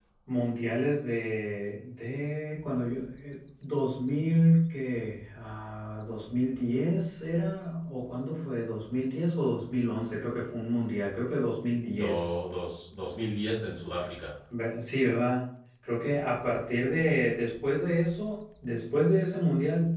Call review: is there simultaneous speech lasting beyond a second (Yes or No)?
No